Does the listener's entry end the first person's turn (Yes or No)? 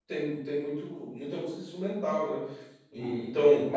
Yes